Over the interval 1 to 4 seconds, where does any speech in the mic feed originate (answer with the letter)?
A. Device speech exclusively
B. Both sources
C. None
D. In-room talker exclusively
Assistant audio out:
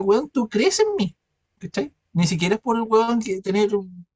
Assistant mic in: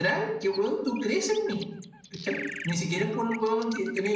A